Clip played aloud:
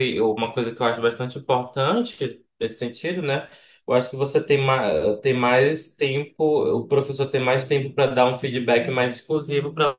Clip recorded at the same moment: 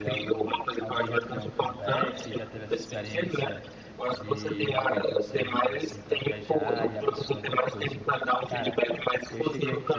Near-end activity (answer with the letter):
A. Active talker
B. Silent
A